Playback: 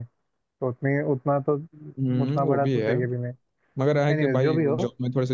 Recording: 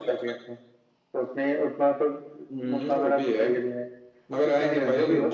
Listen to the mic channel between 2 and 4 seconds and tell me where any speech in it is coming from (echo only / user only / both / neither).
echo only